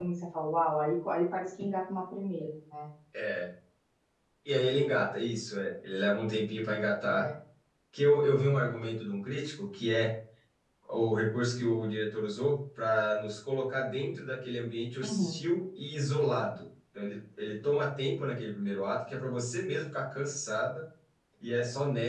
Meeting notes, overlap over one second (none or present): none